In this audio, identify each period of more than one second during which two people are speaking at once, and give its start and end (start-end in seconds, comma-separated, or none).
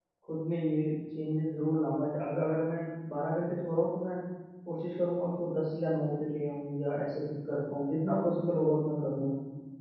none